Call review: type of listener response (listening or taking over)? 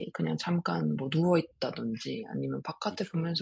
listening